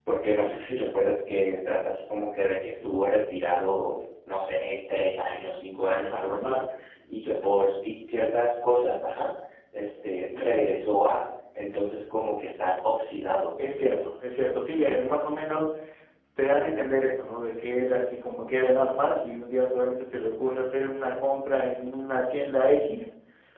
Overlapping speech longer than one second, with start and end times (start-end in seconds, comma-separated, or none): none